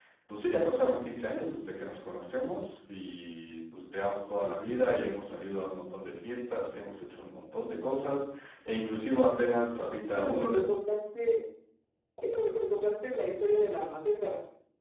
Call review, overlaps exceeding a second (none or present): none